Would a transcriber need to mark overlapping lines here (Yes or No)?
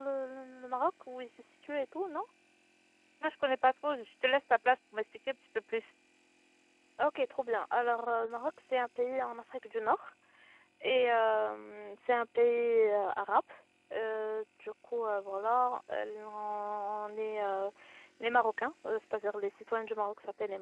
No